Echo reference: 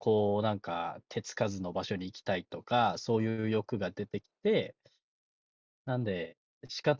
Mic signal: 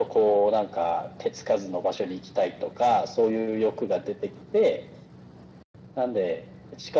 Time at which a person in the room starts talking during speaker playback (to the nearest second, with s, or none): none